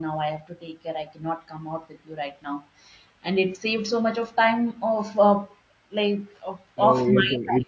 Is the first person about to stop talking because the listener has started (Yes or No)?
Yes